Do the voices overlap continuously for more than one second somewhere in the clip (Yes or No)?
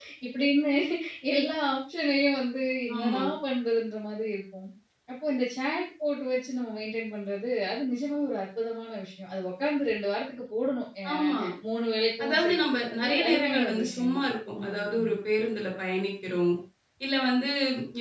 Yes